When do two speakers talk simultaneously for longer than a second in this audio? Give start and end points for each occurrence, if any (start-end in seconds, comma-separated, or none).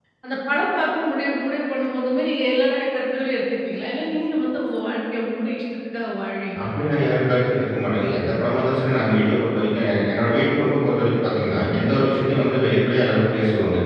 none